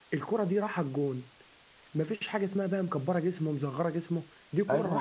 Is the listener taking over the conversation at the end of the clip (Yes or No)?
Yes